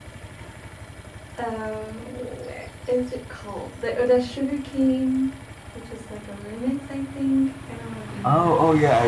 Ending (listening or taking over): taking over